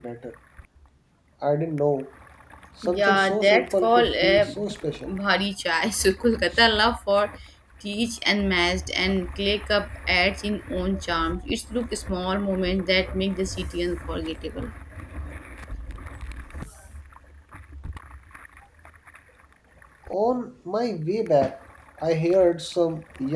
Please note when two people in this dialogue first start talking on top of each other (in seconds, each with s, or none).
3.0 s